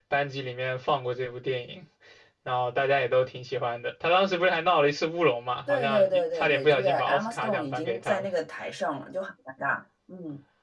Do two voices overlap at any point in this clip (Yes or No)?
Yes